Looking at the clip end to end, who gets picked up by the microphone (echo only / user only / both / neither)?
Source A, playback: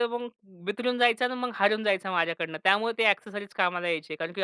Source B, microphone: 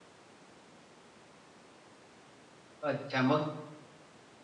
user only